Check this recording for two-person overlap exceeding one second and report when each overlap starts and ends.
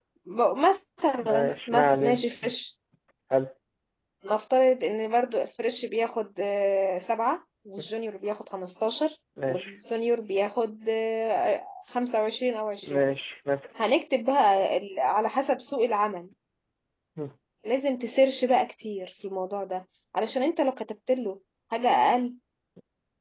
1.2-2.5

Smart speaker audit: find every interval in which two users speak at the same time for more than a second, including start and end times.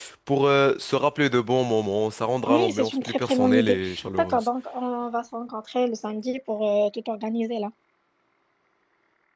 2.5-3.8

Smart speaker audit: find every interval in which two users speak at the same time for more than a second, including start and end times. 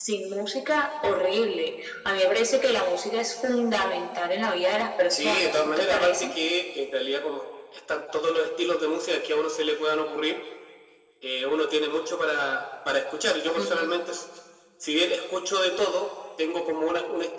5.1-6.3

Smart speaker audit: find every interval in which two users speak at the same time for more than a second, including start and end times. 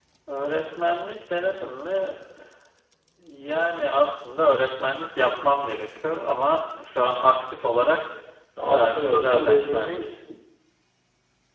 8.6-10.1

